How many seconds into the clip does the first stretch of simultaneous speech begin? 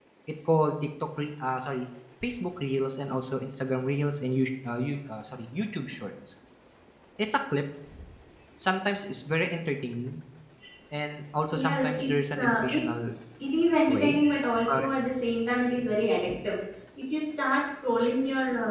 11.5 s

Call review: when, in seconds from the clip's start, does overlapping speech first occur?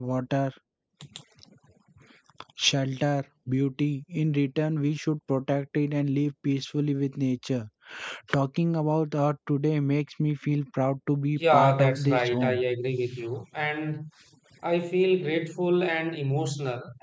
11.4 s

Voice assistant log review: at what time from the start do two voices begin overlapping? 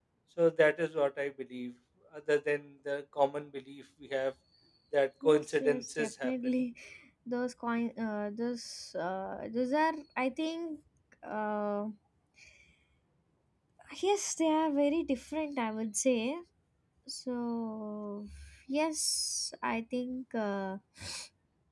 5.2 s

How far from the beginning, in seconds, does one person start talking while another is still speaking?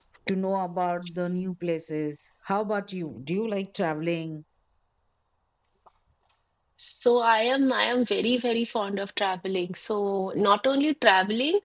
none

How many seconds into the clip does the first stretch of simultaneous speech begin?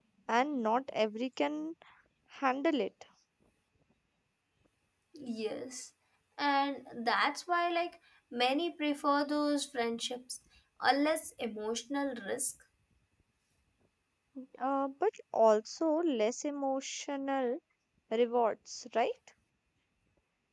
none

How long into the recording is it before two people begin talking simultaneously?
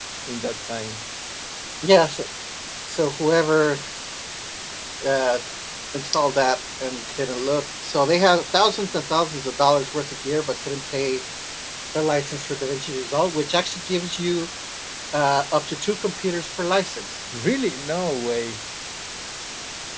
none

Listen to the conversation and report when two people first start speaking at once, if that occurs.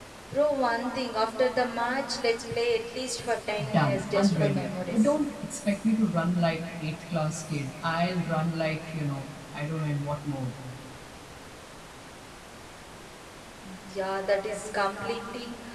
3.6 s

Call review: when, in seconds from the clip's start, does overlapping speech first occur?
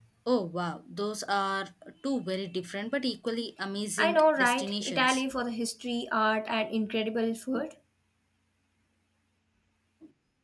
4.0 s

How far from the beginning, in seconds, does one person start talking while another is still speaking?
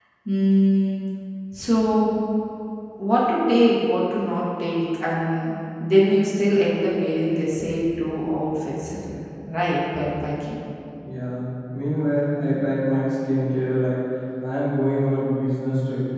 none

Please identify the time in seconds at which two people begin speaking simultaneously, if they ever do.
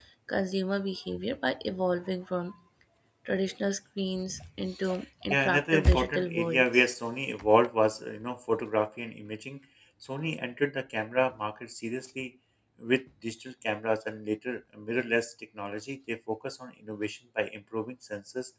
5.3 s

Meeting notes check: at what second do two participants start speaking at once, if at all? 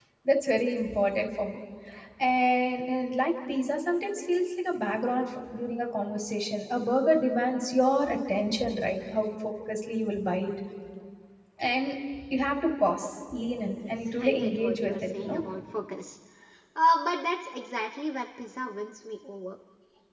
13.8 s

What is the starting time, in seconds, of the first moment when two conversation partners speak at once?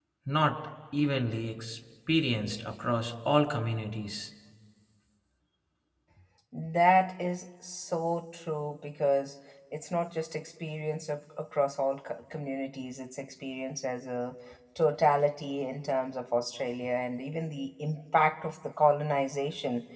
none

